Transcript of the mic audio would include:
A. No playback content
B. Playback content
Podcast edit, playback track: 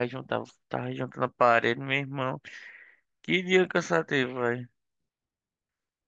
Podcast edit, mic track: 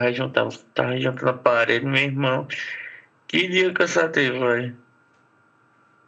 B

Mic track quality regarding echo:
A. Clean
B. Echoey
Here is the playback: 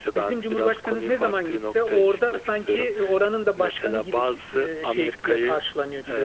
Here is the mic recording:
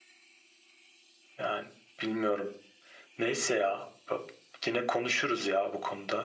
A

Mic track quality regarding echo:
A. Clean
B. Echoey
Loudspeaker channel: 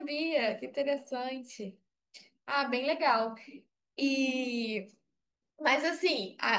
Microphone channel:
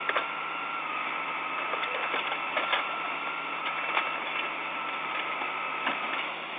A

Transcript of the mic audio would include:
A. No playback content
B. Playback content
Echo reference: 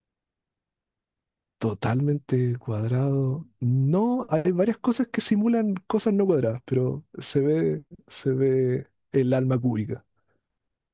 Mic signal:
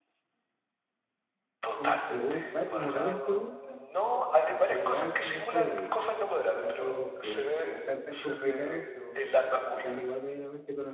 B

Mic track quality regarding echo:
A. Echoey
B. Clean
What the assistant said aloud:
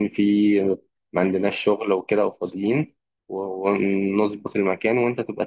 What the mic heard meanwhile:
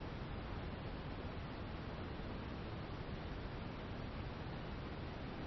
B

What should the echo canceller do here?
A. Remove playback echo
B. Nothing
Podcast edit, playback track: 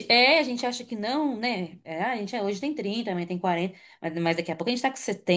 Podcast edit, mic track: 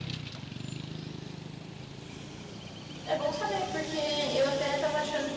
B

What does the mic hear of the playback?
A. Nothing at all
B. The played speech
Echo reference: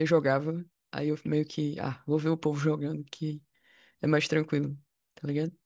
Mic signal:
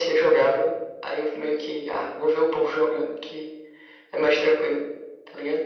B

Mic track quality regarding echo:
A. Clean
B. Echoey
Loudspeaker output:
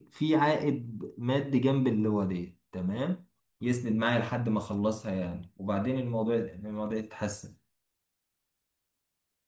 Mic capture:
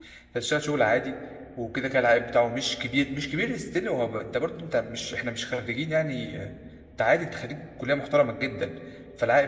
A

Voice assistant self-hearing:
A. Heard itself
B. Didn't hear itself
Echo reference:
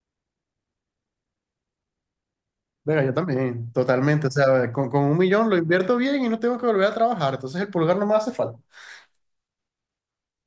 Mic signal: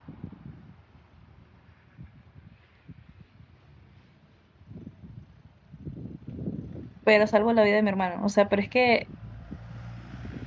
B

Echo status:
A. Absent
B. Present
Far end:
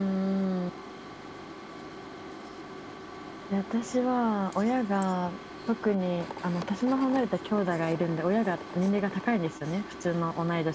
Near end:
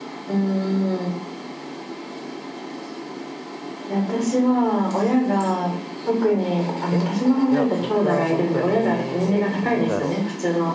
B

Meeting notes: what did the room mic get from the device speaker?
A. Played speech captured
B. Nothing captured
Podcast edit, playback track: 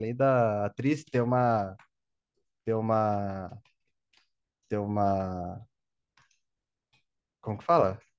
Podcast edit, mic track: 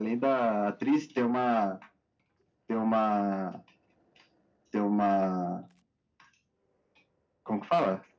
A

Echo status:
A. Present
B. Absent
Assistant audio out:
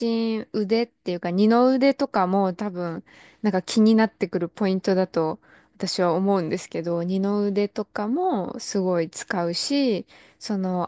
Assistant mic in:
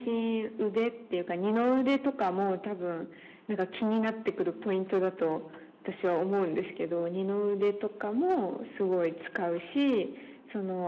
A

